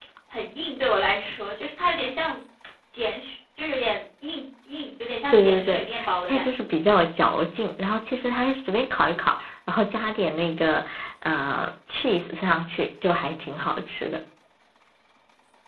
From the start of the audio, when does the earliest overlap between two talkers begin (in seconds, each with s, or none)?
5.3 s